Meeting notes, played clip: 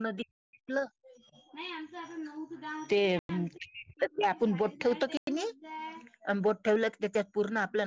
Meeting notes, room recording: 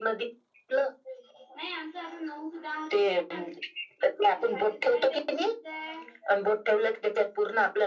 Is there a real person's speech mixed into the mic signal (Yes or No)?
No